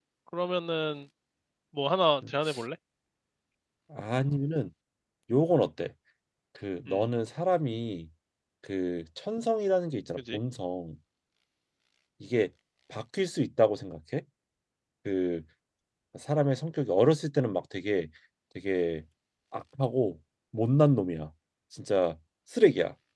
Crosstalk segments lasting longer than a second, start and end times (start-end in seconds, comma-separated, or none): none